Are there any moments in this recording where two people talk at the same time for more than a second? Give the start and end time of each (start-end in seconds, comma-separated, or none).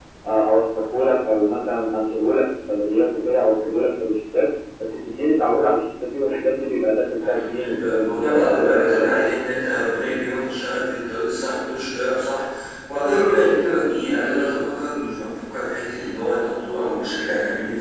7.2-9.3